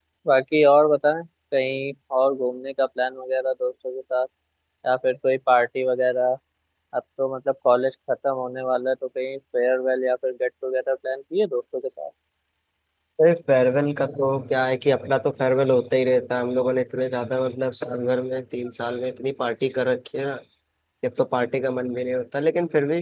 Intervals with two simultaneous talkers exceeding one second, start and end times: none

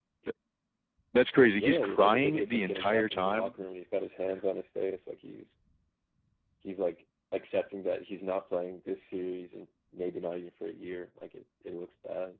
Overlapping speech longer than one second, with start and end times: 1.5-3.5

